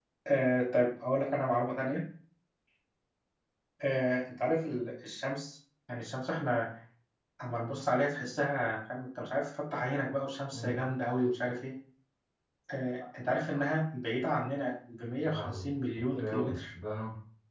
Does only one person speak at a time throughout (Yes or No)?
No